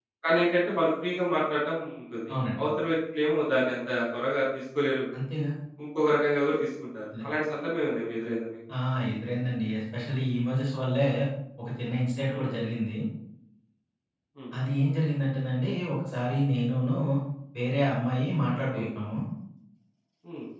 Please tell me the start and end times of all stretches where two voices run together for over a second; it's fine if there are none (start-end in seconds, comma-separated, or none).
none